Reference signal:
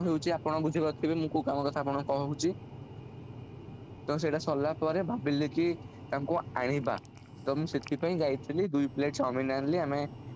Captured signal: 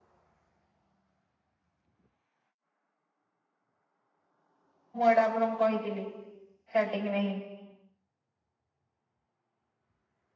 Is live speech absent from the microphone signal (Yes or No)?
No